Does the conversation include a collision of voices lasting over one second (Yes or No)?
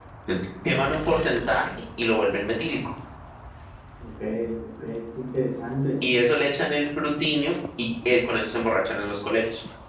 No